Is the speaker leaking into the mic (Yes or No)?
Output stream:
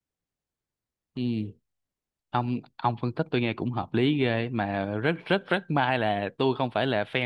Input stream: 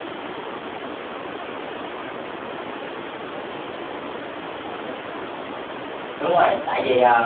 No